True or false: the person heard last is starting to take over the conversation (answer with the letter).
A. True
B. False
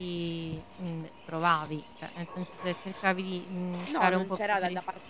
A